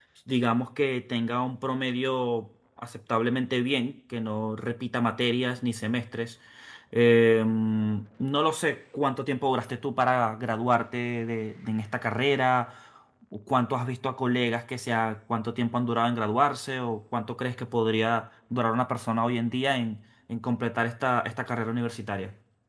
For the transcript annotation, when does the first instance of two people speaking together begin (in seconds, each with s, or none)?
none